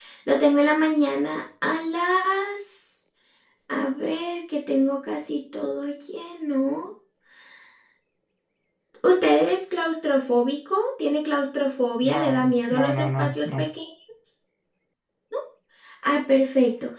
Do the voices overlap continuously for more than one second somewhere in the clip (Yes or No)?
Yes